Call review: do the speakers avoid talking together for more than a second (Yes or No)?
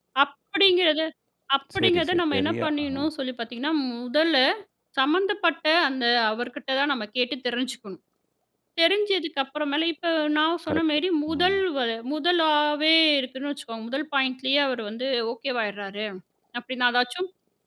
No